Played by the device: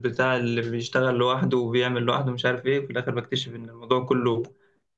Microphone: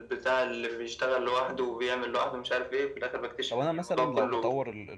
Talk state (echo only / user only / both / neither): both